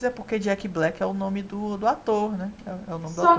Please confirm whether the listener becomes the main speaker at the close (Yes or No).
Yes